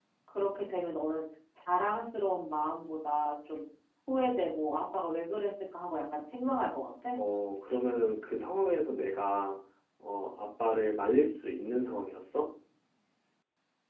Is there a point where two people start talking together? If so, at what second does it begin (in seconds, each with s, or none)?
none